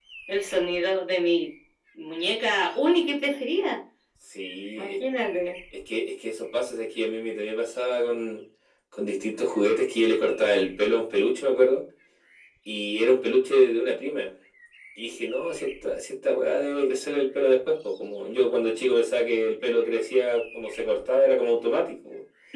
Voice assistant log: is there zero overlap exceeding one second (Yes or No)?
Yes